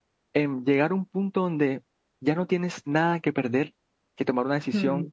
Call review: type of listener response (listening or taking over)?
listening